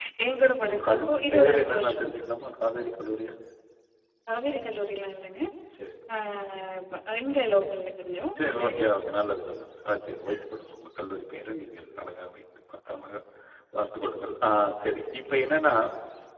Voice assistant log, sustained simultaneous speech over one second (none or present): present